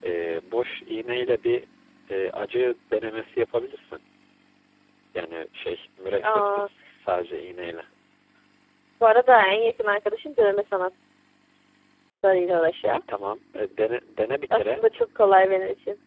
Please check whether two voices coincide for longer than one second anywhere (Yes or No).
No